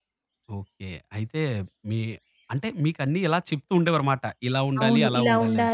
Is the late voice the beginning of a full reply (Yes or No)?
Yes